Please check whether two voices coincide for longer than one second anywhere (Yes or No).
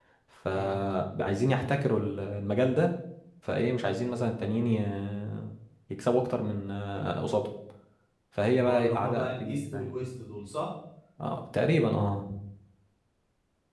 Yes